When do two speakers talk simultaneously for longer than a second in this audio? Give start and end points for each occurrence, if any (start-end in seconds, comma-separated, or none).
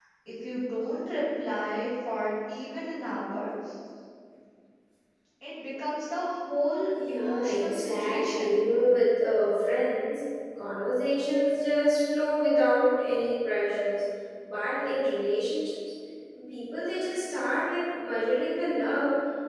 7.1-8.6